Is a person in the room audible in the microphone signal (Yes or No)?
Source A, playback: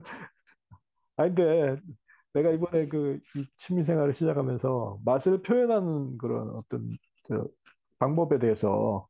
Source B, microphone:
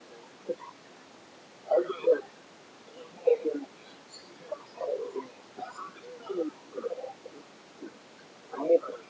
No